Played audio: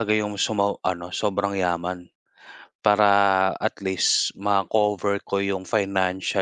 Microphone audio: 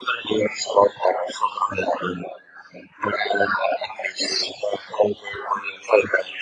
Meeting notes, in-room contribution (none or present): none